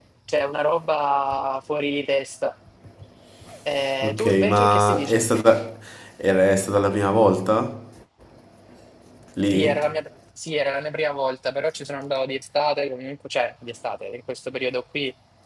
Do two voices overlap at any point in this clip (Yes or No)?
Yes